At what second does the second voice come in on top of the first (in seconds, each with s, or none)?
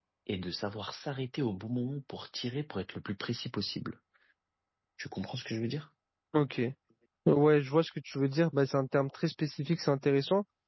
none